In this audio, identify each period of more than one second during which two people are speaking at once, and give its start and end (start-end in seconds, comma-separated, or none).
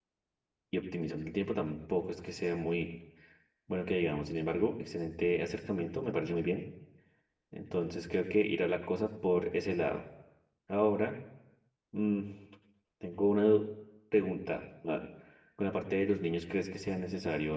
none